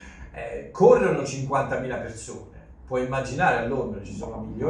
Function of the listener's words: listening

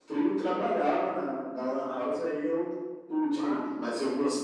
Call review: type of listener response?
listening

